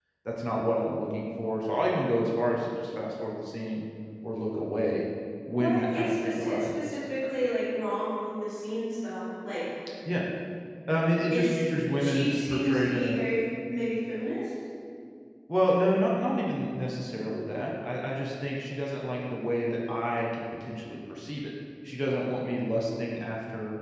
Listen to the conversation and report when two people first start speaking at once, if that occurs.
5.5 s

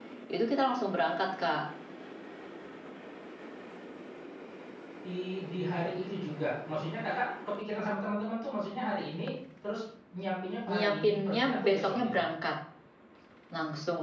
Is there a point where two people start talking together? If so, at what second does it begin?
10.7 s

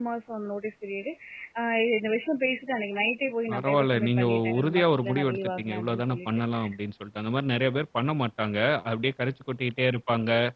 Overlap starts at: 3.5 s

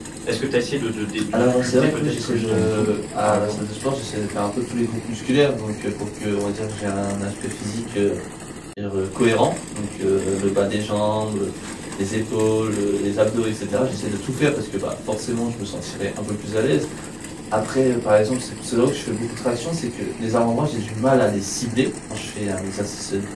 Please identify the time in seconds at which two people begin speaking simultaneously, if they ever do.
1.3 s

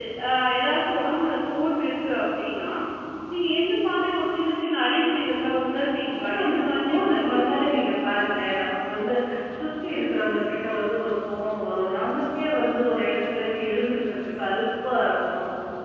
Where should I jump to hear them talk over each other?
6.2 s

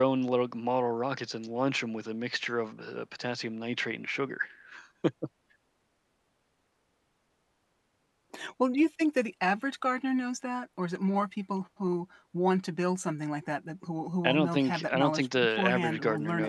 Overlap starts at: 14.2 s

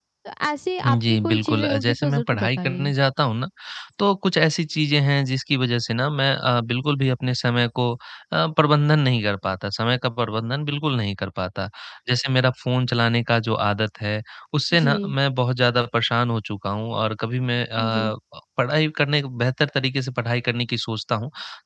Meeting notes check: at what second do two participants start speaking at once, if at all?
0.9 s

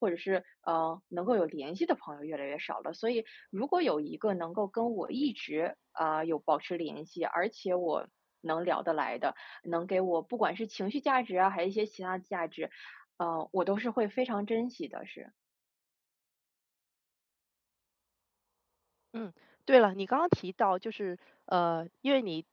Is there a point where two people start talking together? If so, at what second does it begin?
none

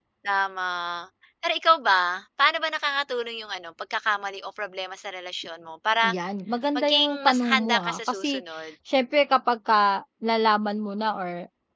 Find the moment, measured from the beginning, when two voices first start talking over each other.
6.8 s

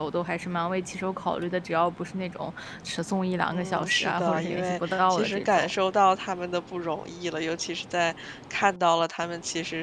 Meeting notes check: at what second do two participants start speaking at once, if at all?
3.5 s

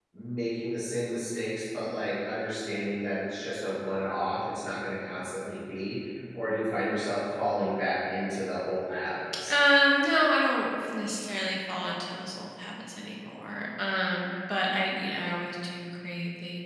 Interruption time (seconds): none

